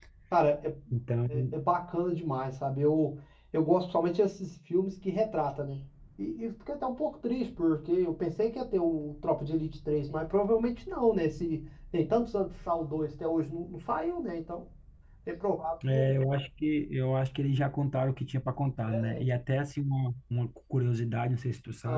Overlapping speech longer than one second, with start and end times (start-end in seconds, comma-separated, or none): none